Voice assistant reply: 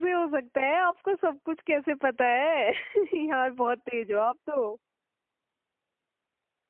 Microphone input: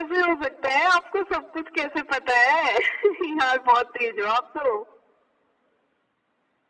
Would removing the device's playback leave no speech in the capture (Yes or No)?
Yes